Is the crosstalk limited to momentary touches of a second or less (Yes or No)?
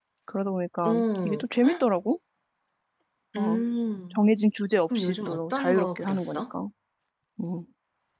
No